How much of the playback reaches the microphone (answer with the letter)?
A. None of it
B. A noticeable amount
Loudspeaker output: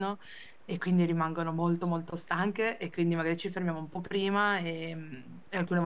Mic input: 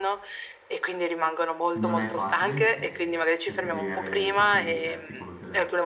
B